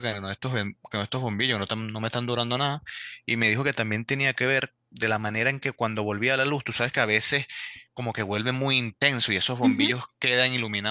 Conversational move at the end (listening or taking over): listening